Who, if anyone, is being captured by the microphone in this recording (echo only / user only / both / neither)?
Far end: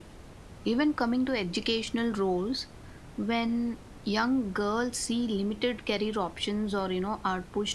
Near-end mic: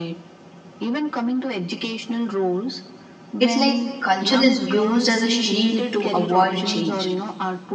both